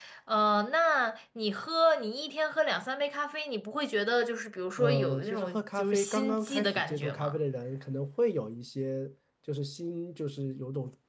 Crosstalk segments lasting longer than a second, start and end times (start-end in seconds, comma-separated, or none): 4.8-7.4